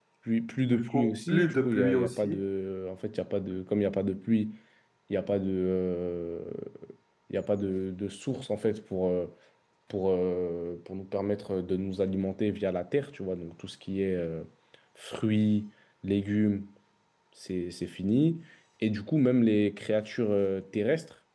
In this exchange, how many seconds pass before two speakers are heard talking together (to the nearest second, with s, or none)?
1 s